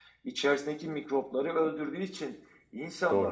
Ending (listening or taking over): listening